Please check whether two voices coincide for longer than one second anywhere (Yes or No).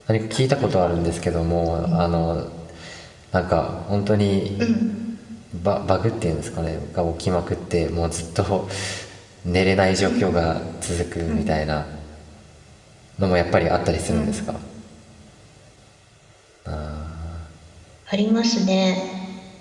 No